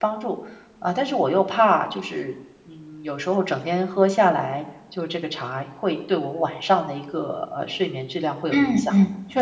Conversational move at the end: taking over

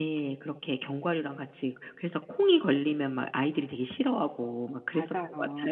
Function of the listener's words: taking over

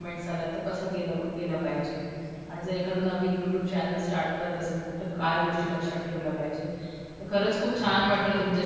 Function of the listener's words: listening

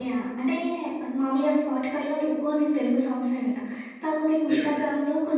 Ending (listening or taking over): listening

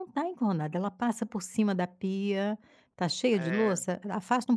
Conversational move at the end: listening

